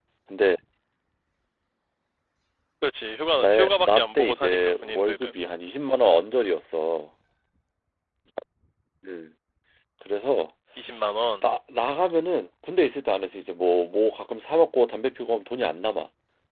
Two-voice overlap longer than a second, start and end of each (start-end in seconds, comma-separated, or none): 3.4-5.4